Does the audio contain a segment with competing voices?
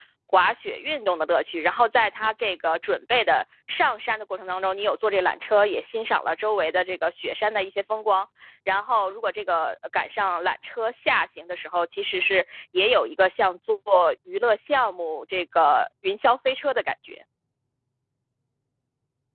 No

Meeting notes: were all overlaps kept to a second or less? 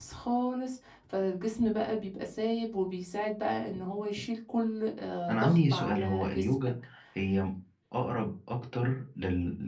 No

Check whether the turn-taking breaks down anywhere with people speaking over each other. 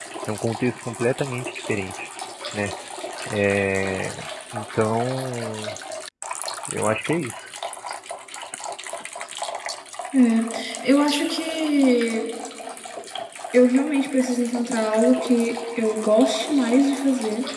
No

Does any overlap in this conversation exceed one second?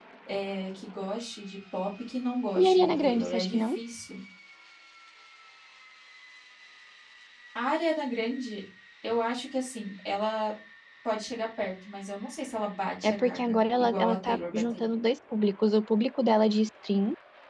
Yes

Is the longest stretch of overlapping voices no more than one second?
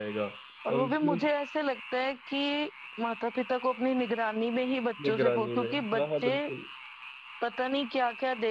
No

